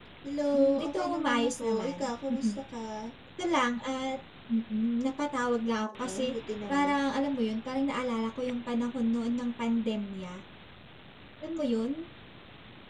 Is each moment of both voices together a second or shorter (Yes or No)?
No